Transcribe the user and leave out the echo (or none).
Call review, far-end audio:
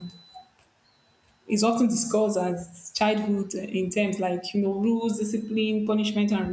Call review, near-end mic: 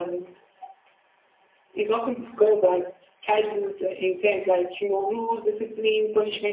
none